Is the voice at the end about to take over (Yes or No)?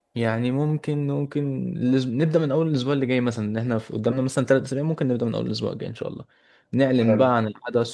No